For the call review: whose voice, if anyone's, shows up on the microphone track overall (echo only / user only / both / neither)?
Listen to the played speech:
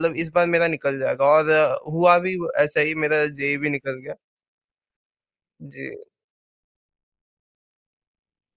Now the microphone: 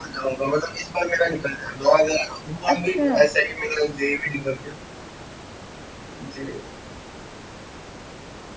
both